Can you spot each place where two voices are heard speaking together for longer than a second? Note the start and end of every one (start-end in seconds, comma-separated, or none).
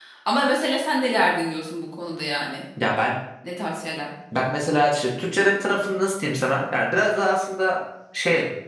none